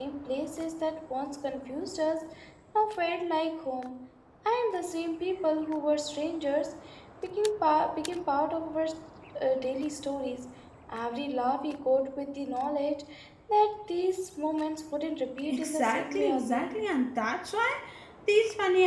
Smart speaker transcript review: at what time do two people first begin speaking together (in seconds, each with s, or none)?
15.4 s